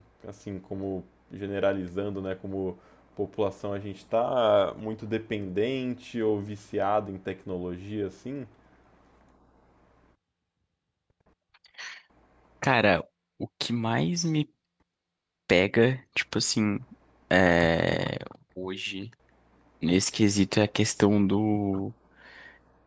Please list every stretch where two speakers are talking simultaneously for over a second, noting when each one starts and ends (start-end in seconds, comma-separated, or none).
none